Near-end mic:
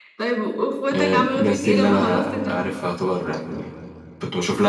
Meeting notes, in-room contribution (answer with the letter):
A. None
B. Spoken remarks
B